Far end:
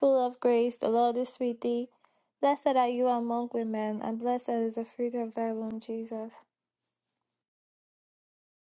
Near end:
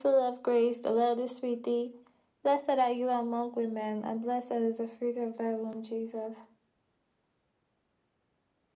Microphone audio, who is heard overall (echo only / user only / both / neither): echo only